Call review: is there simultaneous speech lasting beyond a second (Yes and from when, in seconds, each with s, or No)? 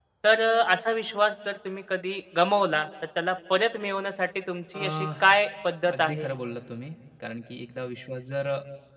No